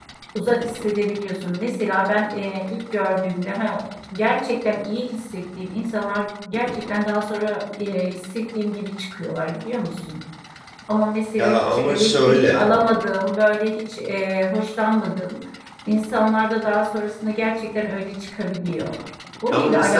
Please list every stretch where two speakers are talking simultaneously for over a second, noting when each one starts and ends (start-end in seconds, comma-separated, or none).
11.4-12.7